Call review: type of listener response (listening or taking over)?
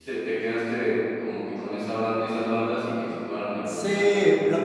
taking over